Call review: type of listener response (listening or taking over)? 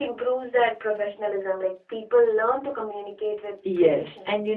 taking over